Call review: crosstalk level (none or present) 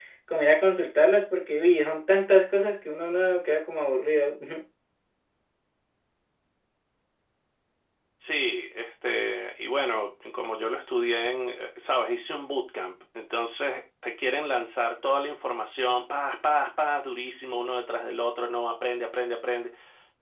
none